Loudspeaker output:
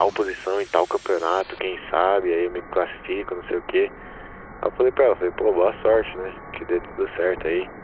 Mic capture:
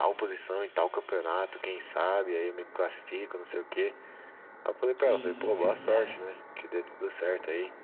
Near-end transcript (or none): que isso, cara?